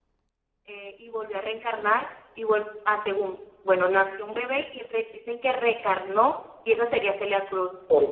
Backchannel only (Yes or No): Yes